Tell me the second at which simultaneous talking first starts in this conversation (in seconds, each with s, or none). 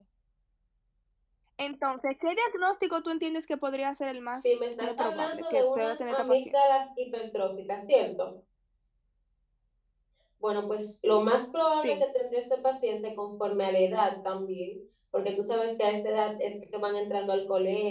4.4 s